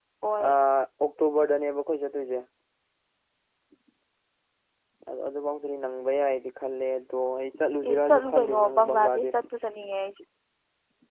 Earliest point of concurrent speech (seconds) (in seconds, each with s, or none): 7.8 s